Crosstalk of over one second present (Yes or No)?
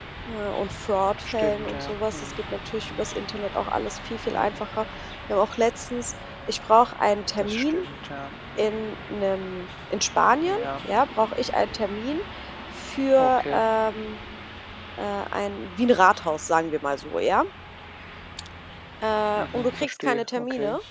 Yes